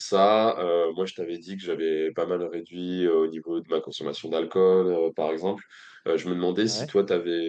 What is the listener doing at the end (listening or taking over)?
listening